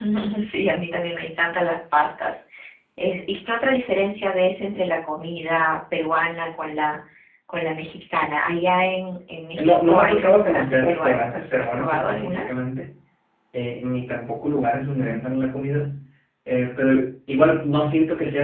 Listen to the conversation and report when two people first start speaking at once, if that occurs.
10 s

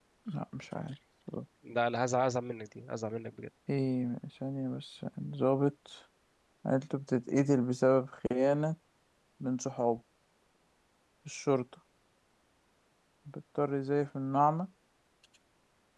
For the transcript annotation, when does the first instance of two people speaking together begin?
none

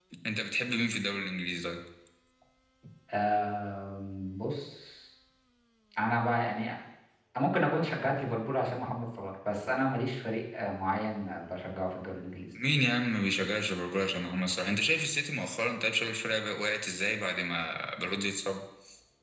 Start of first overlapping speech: none

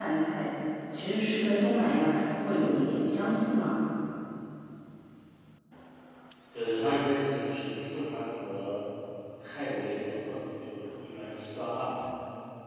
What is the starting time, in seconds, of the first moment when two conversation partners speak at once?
none

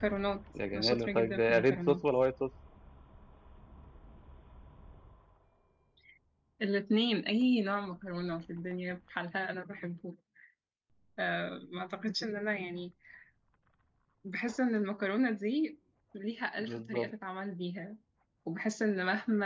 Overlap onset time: 1 s

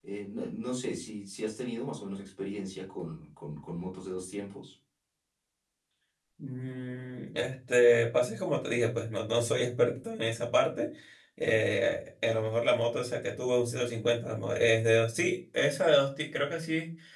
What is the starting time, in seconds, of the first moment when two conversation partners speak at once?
none

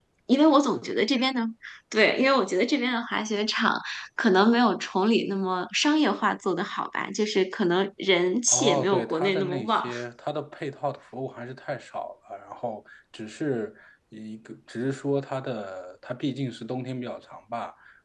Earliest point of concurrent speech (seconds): 8 s

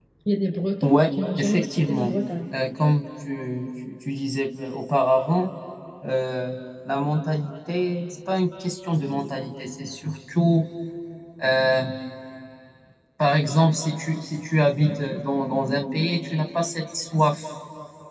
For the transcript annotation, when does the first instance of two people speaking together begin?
1 s

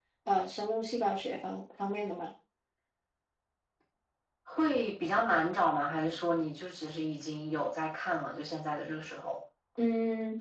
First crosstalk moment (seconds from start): none

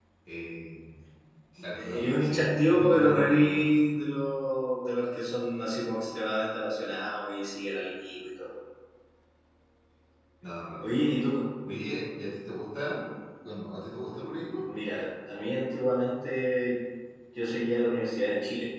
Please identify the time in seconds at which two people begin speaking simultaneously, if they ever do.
2 s

